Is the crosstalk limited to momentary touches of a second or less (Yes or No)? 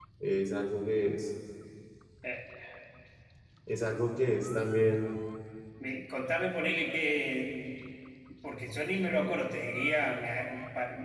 Yes